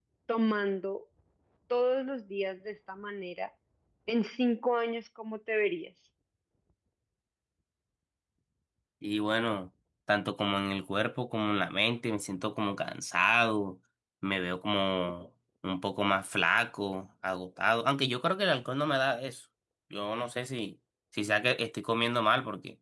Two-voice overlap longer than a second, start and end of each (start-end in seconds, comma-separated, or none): none